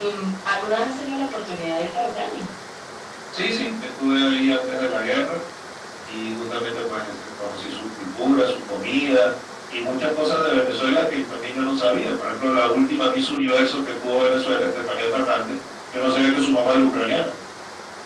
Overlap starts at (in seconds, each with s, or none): none